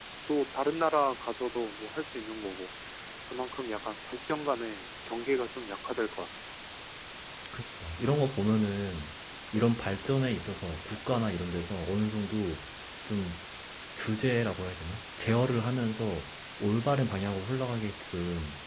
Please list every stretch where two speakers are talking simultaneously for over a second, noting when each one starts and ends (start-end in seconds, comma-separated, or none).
none